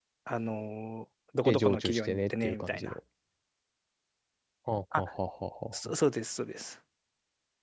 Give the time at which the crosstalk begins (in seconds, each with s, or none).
1.4 s